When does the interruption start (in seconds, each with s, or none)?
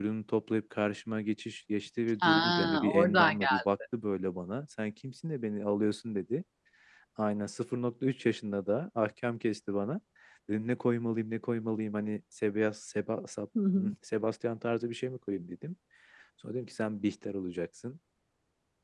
2.2 s